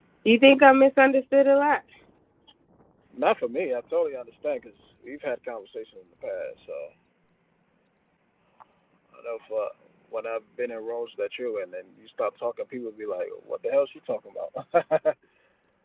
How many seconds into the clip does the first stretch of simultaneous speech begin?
none

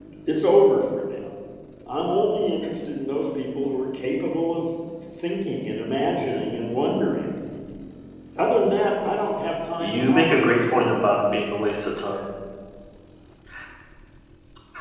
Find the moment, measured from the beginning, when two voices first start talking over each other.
9.8 s

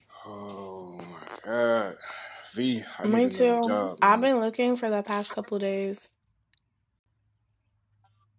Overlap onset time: 3.0 s

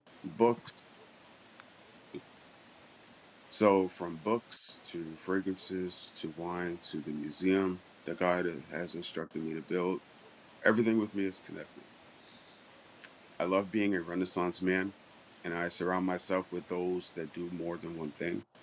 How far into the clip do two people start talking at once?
none

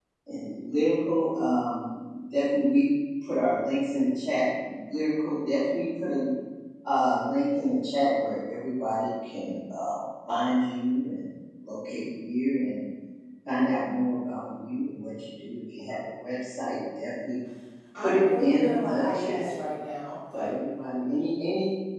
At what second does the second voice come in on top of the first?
18.0 s

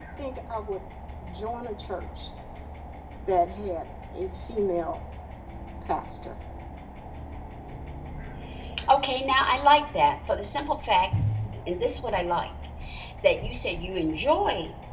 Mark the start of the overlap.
none

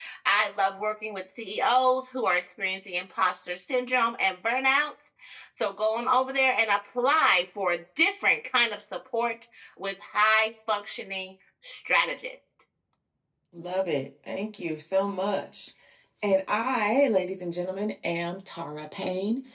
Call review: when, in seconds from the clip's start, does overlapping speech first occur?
none

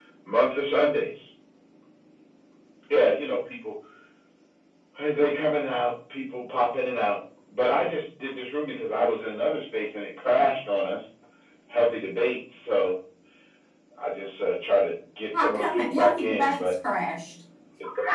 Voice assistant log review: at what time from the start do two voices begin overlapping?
15.3 s

